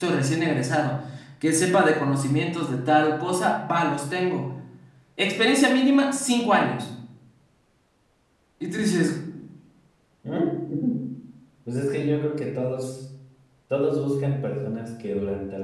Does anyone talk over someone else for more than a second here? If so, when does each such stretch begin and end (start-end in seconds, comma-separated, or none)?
none